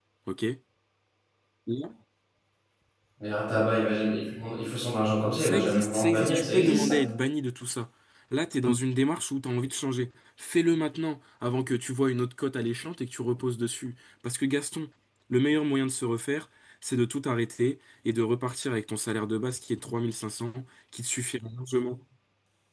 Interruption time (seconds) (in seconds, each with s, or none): 5.4 s